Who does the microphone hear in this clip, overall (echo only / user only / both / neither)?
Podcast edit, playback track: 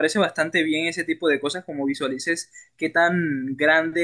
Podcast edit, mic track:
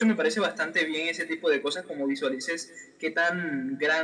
echo only